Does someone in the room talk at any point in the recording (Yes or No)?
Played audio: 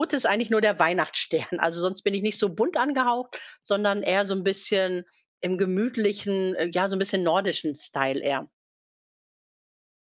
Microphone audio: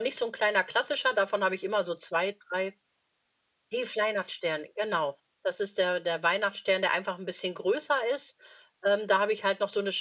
Yes